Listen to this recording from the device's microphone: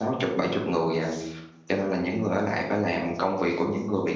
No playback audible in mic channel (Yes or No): Yes